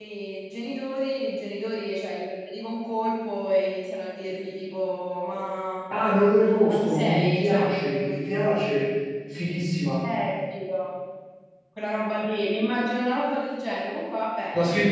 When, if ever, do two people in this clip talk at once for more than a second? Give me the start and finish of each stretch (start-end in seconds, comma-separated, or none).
6.7-8.2